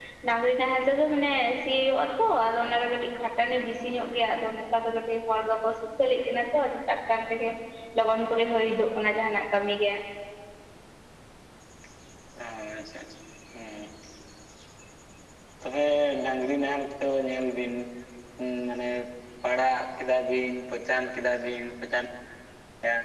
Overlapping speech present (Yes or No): No